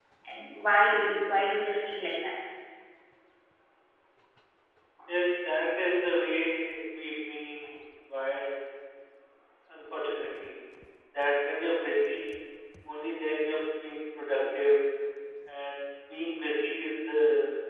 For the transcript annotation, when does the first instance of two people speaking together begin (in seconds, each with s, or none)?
none